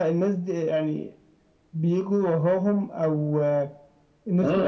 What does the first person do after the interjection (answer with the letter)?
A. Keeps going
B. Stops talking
B